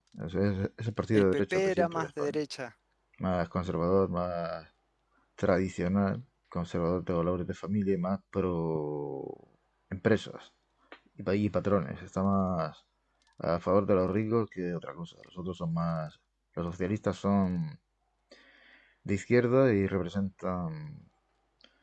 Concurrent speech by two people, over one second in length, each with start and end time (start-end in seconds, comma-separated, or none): 1.1-2.4